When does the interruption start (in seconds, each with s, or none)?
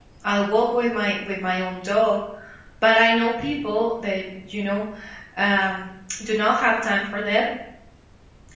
none